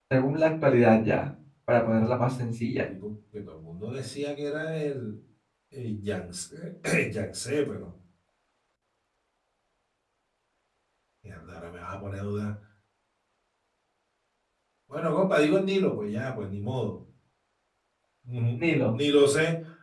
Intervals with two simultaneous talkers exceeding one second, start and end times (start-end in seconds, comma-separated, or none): none